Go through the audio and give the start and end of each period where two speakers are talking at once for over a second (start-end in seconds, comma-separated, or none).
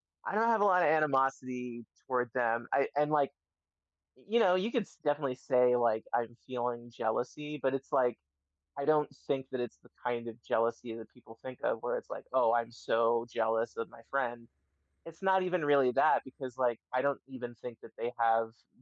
none